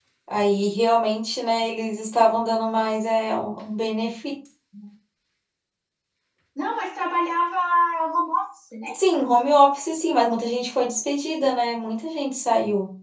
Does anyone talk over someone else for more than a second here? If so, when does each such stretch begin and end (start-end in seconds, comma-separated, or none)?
none